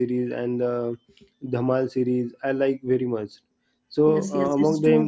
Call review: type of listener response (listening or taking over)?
taking over